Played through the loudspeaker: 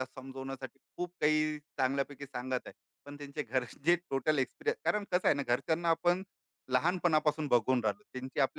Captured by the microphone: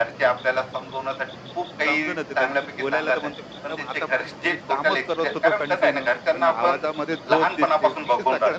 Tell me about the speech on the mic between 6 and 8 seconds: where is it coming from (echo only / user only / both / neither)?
both